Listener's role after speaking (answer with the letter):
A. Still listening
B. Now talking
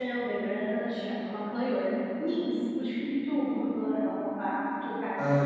B